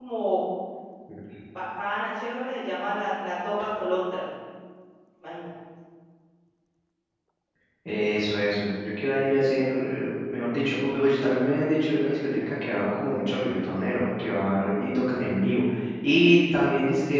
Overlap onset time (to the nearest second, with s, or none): none